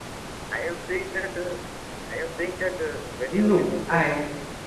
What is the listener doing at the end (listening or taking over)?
listening